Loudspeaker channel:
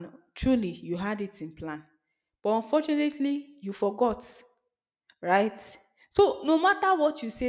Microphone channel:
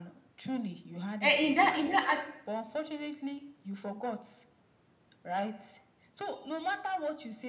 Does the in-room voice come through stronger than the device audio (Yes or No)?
Yes